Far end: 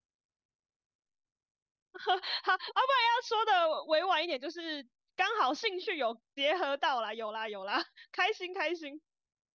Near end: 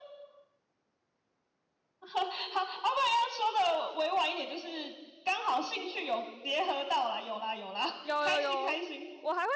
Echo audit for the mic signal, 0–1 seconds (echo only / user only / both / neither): neither